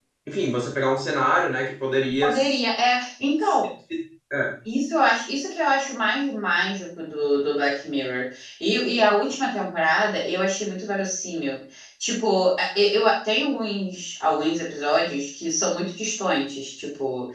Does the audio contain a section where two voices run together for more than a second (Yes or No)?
No